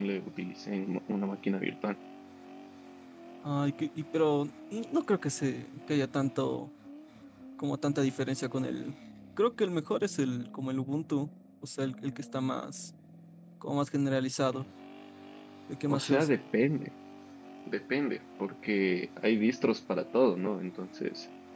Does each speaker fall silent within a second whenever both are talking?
Yes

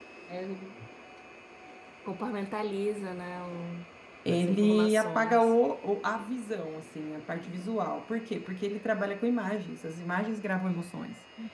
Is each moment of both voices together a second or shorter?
No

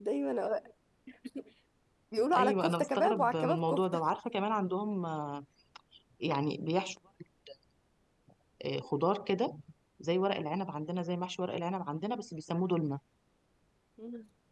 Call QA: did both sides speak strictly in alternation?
No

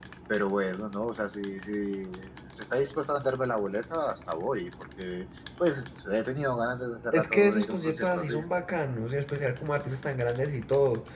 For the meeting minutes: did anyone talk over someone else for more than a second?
Yes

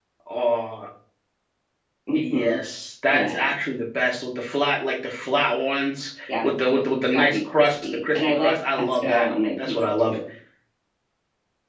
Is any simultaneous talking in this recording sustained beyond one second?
Yes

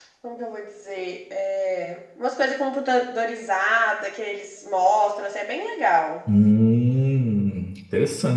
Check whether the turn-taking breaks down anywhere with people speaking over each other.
No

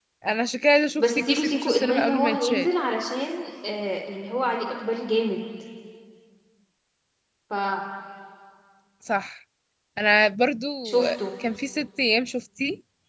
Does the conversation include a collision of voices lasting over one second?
Yes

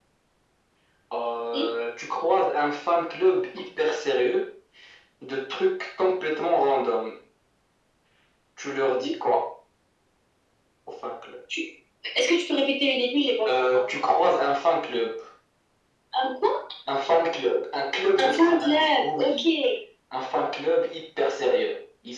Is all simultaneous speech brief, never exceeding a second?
No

